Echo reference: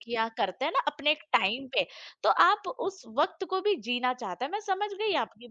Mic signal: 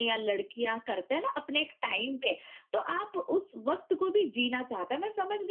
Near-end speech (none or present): none